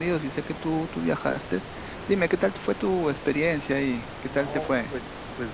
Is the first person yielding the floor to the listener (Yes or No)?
Yes